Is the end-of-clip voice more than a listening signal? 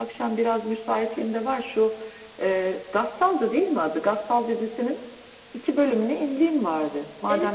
Yes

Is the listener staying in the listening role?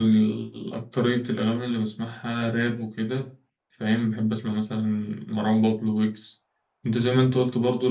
Yes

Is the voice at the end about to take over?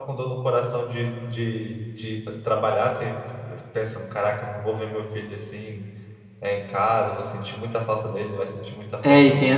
Yes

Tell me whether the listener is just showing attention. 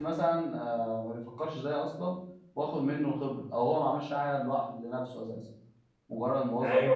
No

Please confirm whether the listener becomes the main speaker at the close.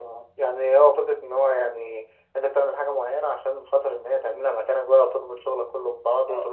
Yes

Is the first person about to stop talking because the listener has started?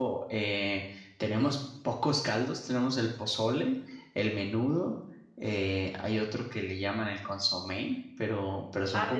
Yes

